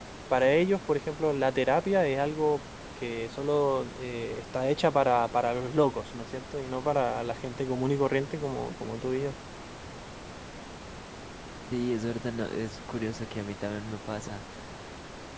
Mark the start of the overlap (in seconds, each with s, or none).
none